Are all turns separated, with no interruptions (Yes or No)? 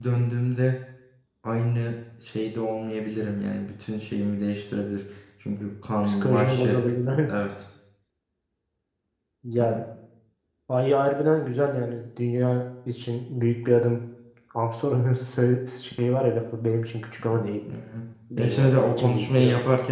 No